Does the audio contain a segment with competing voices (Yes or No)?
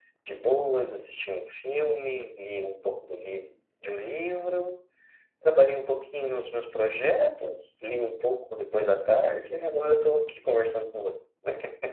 No